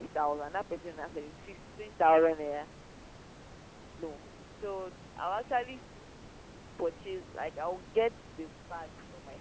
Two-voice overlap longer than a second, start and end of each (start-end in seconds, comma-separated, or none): none